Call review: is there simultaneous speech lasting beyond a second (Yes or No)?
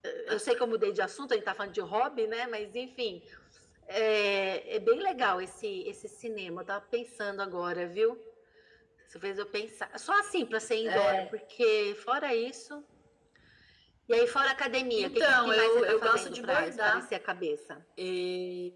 Yes